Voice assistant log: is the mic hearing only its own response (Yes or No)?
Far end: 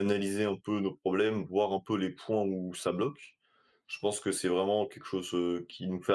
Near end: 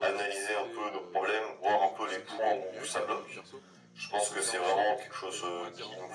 No